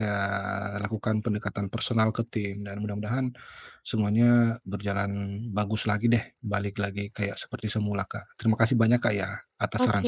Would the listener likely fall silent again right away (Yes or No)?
No